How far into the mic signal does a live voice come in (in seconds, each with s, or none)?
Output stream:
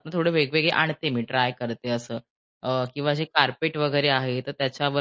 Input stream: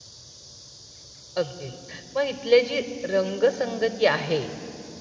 1.4 s